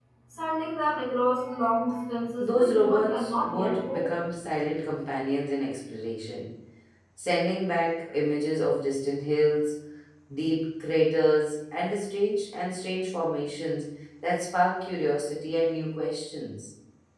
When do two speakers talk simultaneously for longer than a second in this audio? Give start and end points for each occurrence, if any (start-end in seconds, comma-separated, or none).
2.4-4.1